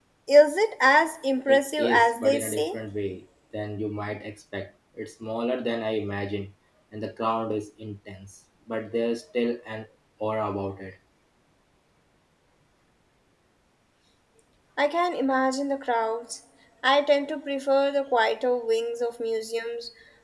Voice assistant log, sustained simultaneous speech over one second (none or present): present